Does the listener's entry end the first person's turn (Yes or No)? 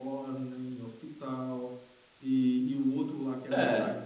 No